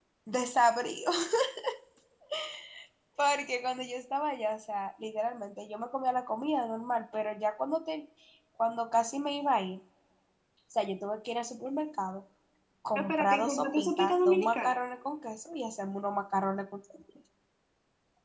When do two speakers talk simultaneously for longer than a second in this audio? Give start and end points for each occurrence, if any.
12.9-14.8

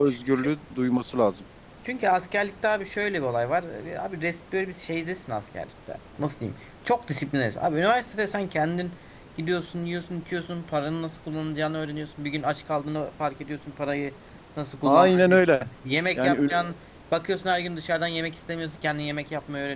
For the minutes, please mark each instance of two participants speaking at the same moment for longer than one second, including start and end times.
none

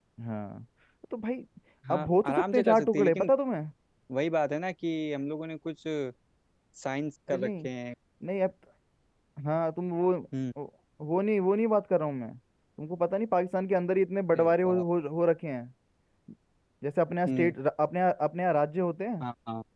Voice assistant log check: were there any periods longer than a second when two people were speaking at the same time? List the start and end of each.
1.9-3.3

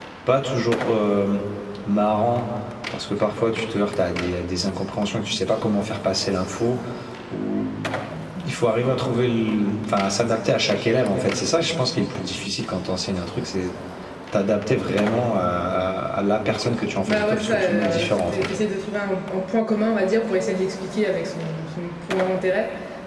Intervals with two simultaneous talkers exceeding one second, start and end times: 17.1-18.5

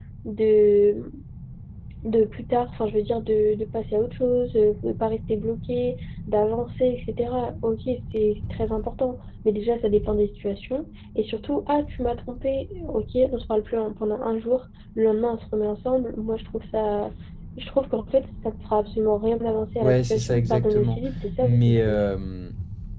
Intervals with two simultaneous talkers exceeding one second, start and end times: 19.8-21.0

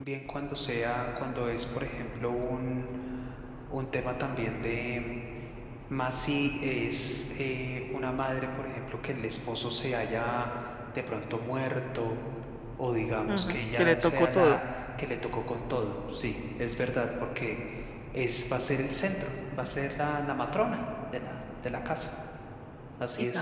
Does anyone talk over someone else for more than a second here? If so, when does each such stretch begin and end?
13.3-14.6

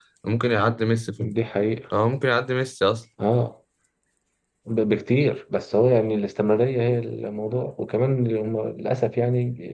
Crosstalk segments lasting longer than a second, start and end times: none

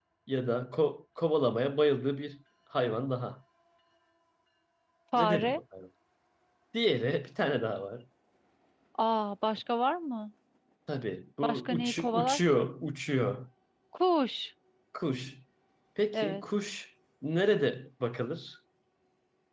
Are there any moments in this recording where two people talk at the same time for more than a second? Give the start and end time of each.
11.4-12.7

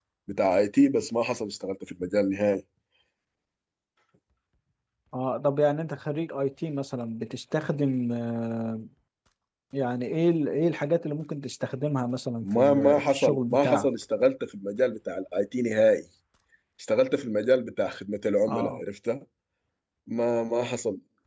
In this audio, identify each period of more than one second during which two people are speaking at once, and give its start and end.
12.4-13.9

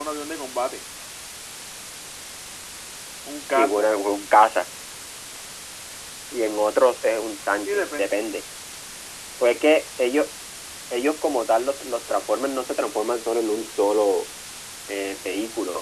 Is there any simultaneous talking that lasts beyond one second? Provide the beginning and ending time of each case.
none

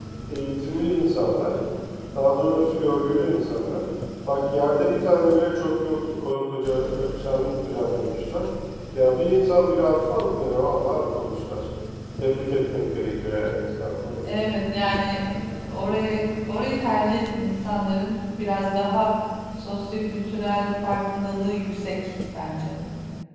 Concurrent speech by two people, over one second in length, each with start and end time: none

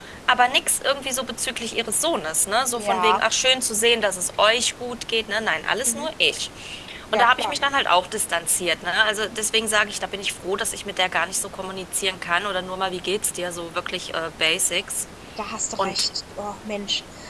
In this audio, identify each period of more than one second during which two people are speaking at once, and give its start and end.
none

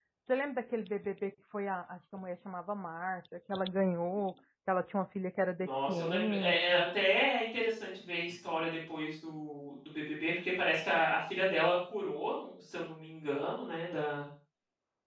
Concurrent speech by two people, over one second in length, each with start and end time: 5.6-6.8

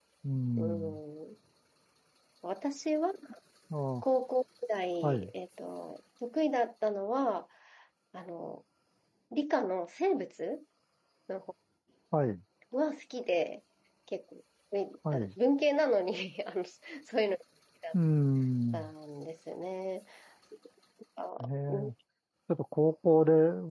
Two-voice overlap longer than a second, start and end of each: none

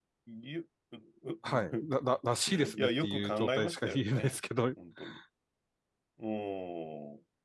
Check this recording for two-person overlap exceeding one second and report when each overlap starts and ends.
2.5-4.4

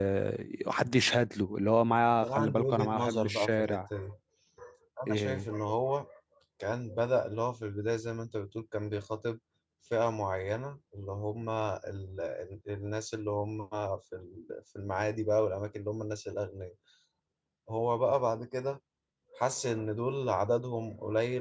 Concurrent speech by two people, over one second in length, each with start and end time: 2.2-3.8

